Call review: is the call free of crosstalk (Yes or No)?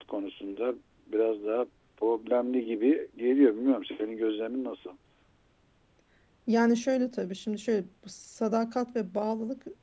Yes